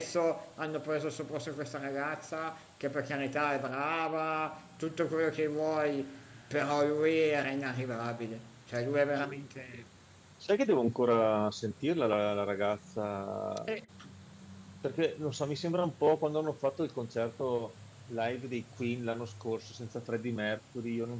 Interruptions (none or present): none